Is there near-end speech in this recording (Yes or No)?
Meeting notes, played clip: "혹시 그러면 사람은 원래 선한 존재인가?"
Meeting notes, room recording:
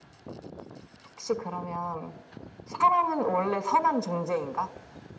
No